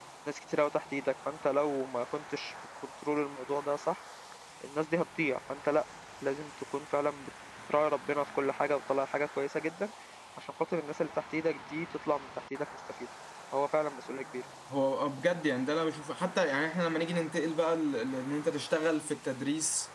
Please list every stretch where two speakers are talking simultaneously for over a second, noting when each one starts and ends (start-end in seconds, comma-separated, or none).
none